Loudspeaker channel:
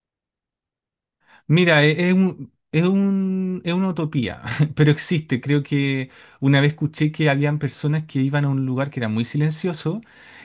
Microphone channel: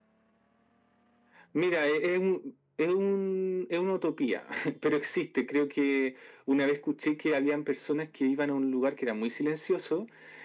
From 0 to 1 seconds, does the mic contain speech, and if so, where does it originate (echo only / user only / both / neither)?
neither